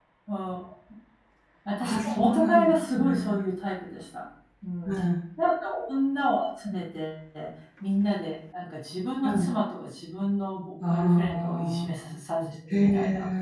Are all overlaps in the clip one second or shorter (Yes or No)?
No